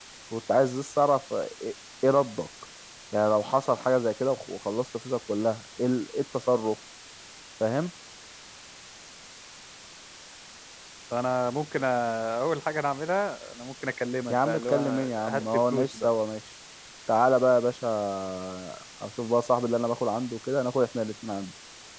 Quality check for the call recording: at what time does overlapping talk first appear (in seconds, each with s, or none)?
14.3 s